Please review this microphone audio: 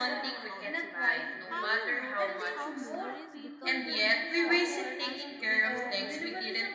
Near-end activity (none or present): present